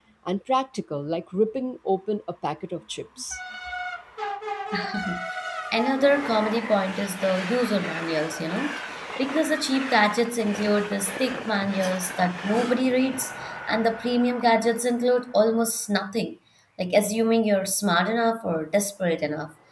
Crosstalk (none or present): none